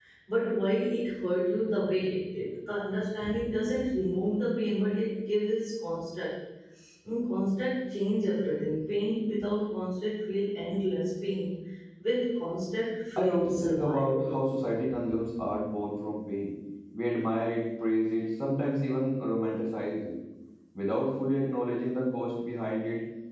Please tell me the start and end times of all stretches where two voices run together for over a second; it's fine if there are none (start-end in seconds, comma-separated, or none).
13.2-14.4